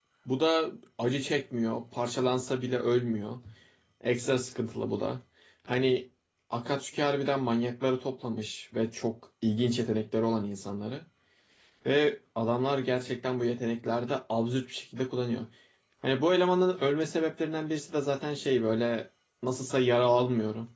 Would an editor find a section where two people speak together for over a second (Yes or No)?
No